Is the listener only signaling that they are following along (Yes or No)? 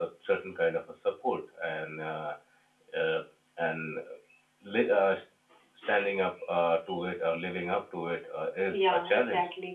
No